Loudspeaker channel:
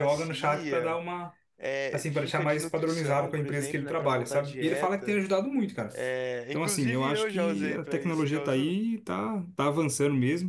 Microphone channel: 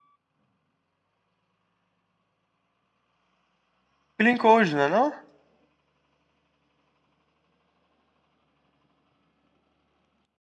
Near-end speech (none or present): present